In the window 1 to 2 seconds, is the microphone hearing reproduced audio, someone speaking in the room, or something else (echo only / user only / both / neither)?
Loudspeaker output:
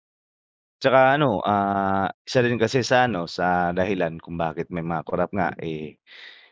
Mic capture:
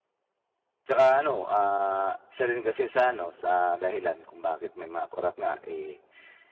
echo only